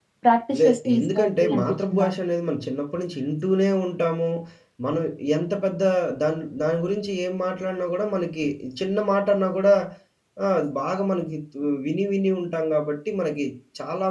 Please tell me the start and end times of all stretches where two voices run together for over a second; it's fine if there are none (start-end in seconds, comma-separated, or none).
0.6-2.1